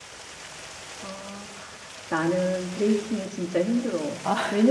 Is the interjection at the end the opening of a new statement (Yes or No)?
No